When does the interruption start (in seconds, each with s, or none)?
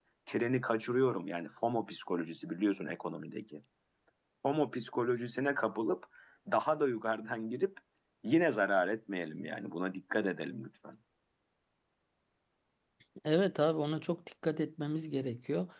none